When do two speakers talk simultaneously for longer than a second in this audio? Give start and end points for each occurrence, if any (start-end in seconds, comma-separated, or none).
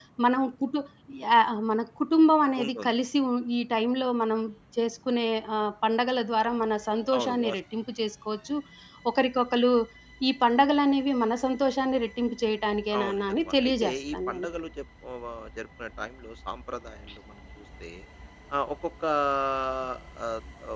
13.0-14.5